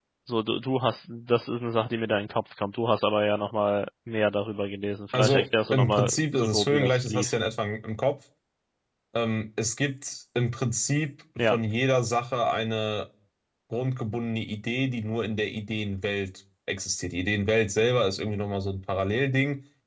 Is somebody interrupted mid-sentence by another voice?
Yes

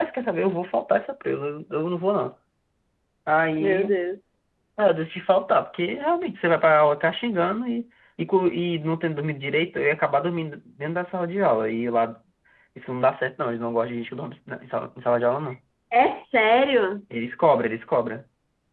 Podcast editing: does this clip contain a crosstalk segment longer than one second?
No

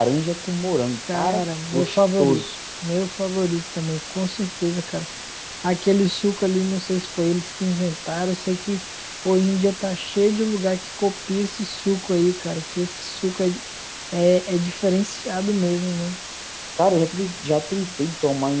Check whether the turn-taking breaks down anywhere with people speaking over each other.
Yes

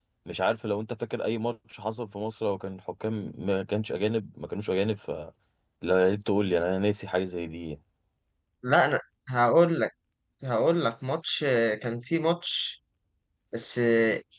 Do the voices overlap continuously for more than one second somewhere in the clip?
No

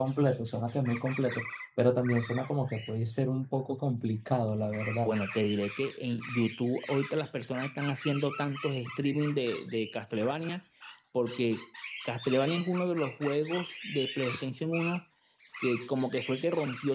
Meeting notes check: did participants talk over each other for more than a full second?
No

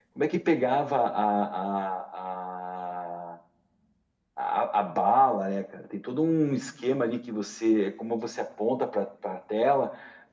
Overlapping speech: No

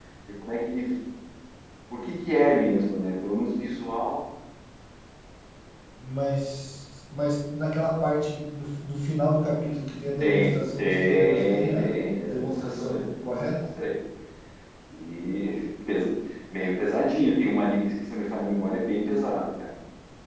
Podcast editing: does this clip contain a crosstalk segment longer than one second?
Yes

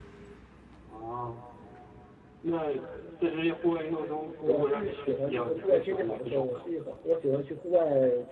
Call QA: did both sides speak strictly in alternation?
No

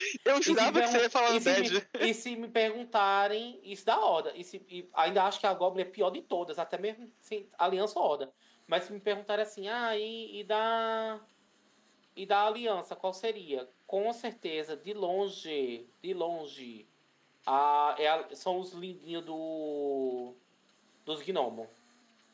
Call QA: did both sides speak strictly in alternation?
No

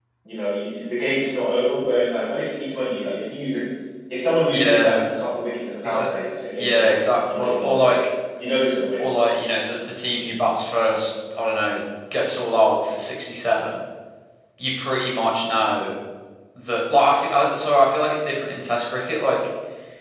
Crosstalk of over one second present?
Yes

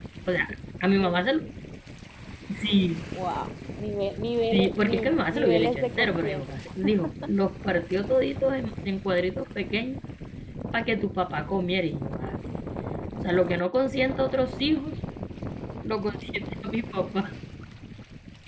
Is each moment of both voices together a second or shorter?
No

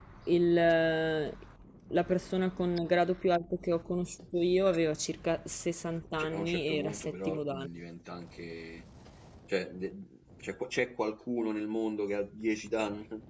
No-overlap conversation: No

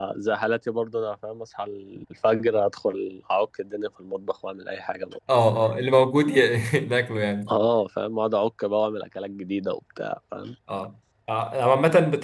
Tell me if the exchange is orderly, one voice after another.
Yes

